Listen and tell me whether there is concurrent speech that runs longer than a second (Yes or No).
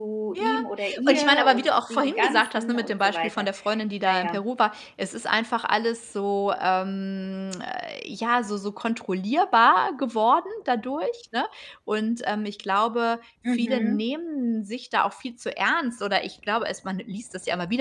Yes